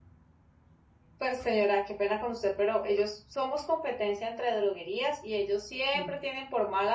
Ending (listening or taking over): listening